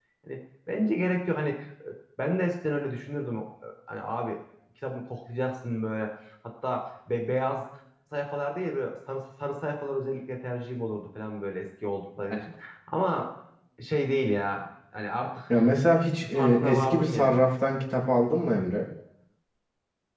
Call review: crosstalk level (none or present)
present